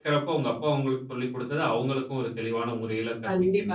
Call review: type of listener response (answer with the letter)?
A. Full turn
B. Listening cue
A